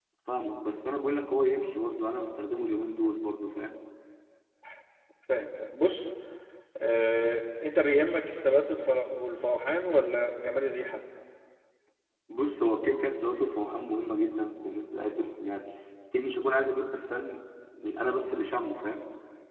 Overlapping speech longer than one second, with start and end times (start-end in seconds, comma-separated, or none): none